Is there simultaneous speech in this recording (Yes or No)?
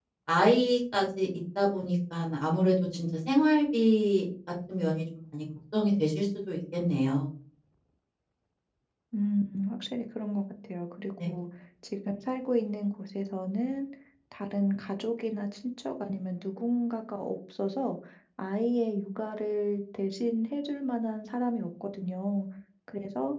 No